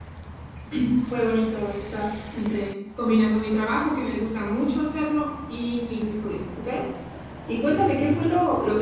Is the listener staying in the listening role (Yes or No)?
Yes